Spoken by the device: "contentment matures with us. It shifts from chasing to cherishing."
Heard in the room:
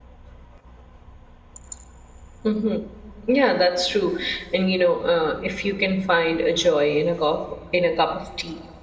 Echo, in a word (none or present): none